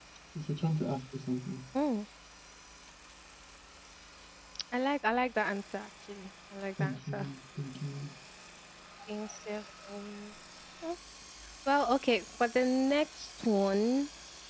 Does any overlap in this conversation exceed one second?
No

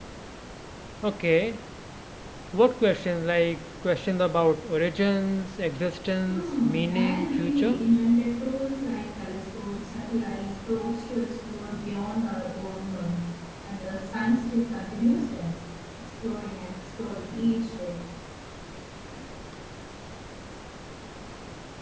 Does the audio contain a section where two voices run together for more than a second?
Yes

